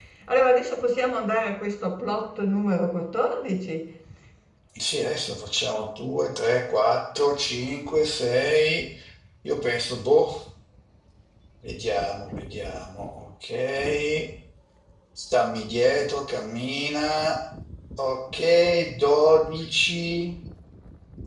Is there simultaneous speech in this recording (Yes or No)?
No